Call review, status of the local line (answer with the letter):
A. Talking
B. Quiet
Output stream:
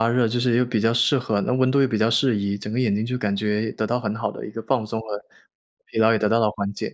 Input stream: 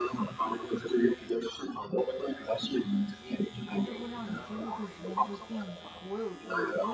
A